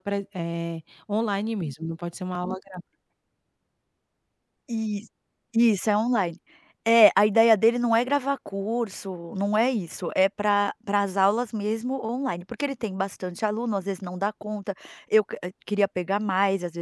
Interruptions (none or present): none